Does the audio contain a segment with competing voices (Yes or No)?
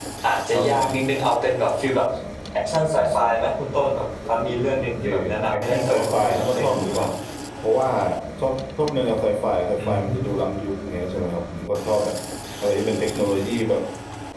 Yes